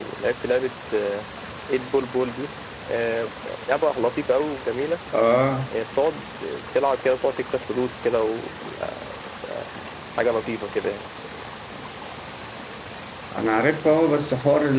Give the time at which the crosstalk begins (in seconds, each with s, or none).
none